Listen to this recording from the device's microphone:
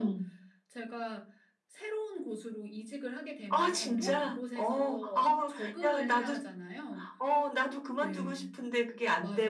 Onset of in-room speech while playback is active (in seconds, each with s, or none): 3.8 s